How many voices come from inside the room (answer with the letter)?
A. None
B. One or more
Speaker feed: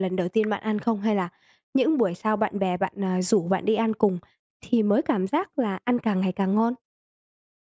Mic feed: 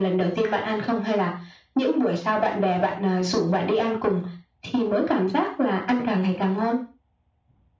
A